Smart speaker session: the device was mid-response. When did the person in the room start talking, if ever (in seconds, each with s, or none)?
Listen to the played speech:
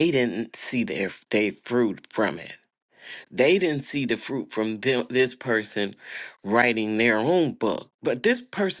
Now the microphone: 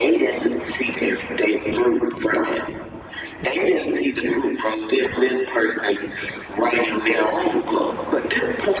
none